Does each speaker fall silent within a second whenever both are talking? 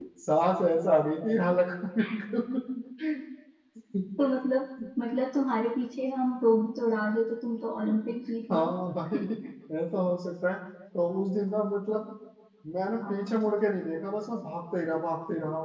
Yes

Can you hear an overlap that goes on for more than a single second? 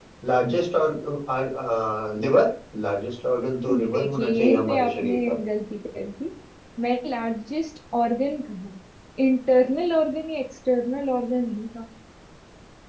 Yes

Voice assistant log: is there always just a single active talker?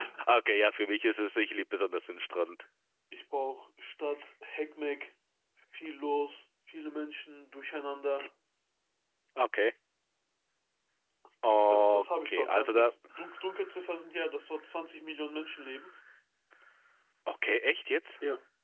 No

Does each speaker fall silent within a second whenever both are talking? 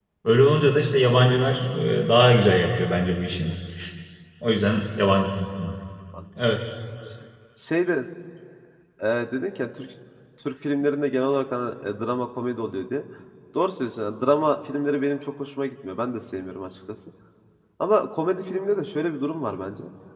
Yes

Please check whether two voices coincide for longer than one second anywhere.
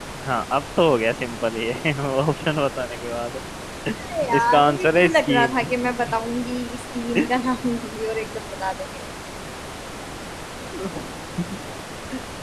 Yes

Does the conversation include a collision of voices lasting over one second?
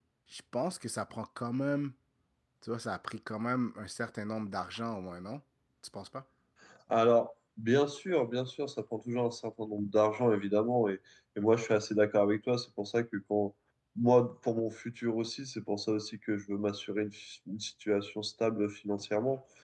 No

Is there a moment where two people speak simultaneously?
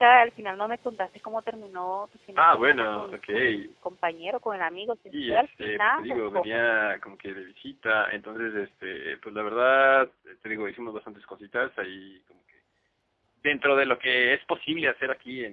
Yes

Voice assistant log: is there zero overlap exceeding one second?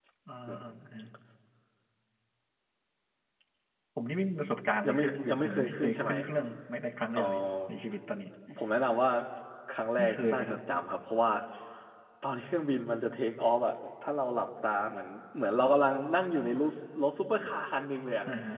No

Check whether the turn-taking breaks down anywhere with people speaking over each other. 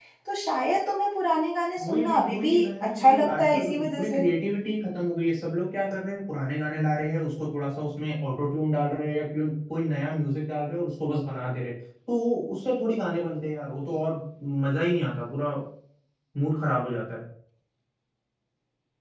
Yes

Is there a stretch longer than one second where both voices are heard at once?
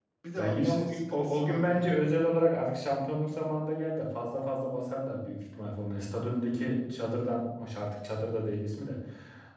Yes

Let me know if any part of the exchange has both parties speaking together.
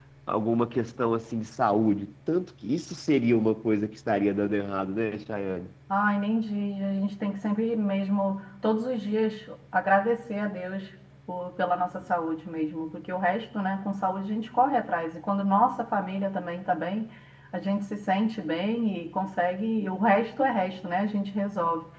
No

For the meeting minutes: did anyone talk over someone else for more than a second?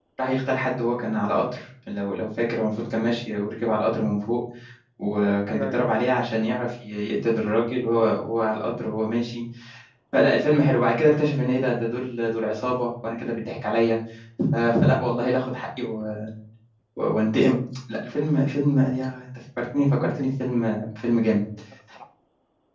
No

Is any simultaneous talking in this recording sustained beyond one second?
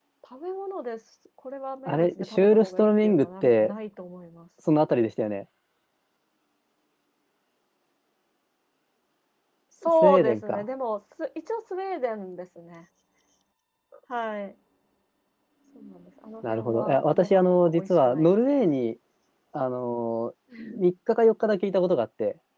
Yes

